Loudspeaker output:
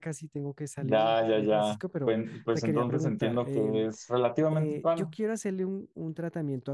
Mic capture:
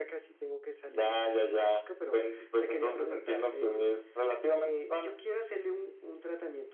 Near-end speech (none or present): none